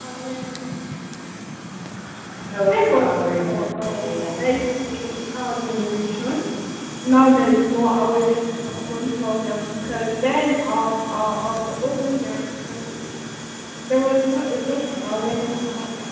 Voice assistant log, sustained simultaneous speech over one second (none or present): present